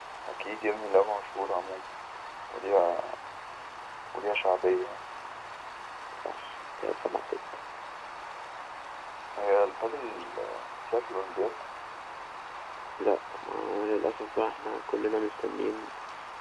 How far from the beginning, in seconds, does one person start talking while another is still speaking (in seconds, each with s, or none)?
none